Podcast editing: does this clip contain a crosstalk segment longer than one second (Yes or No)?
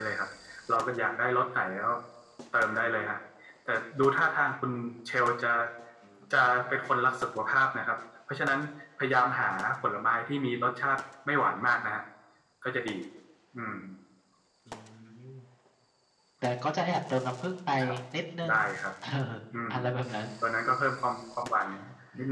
No